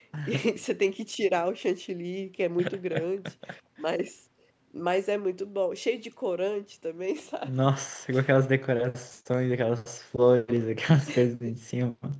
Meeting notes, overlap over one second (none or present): none